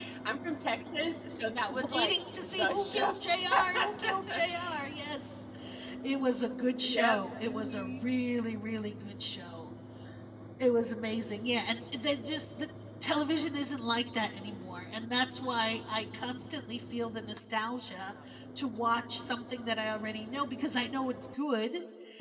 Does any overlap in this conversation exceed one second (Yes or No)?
Yes